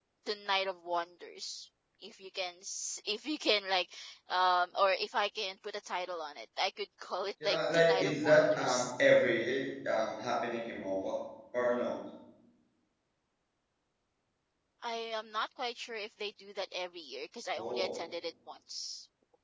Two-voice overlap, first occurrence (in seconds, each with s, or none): 7.4 s